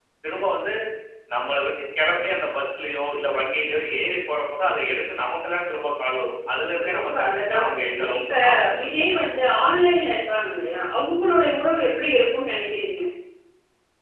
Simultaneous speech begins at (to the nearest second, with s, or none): 7 s